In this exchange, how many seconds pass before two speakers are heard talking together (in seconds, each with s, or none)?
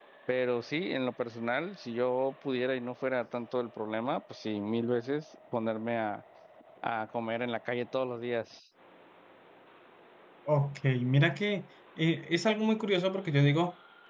none